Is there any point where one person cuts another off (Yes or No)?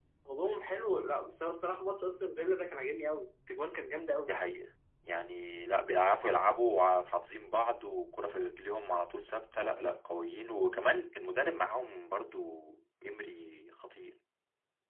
No